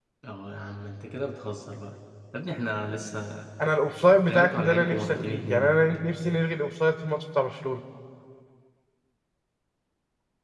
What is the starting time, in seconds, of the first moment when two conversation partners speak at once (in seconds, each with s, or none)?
4.2 s